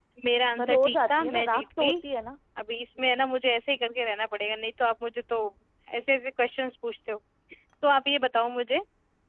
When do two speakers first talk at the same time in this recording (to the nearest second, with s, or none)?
1 s